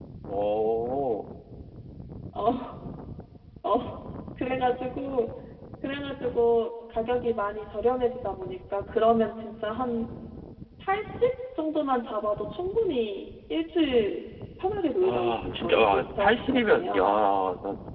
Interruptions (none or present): present